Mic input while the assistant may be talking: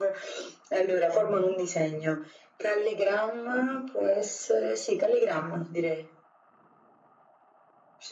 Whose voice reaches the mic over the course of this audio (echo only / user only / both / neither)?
both